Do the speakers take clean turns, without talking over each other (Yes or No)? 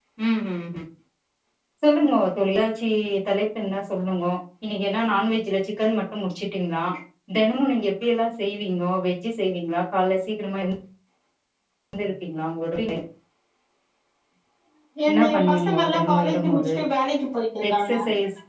No